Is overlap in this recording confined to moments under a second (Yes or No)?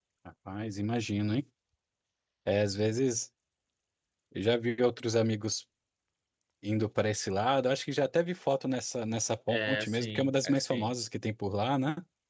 No